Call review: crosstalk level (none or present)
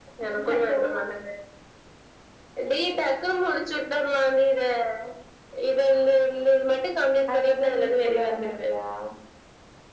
present